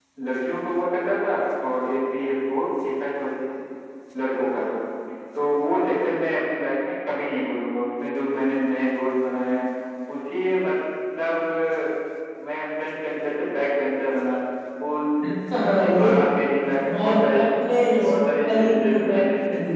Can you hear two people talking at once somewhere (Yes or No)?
Yes